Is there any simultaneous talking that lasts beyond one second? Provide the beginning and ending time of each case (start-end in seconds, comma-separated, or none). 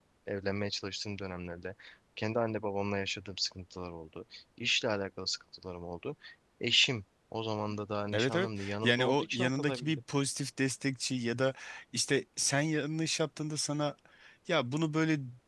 8.1-10.0